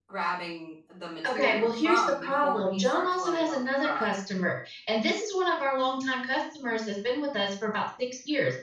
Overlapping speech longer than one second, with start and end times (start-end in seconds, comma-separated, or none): 1.3-4.2